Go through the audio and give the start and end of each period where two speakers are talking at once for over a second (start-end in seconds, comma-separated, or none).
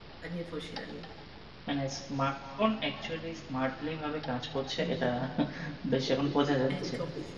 none